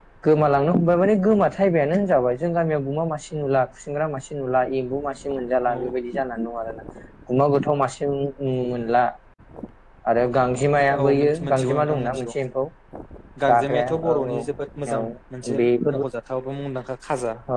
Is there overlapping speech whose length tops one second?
Yes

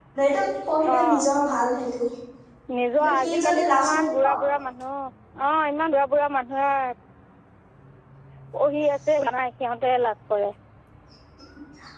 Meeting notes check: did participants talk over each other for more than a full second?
Yes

